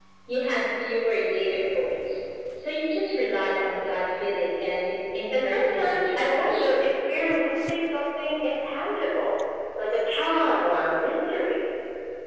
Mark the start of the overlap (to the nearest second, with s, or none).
5 s